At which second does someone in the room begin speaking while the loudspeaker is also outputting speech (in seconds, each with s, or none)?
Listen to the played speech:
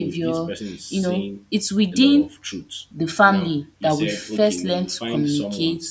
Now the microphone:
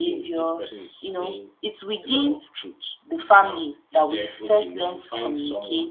none